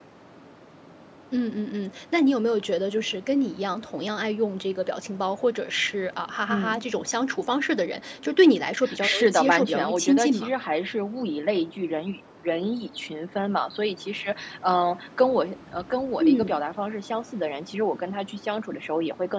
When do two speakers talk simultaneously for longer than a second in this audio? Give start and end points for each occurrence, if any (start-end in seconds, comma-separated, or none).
9.0-10.5